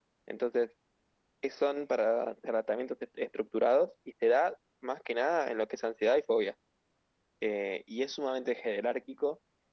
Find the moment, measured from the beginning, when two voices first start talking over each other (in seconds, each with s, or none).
none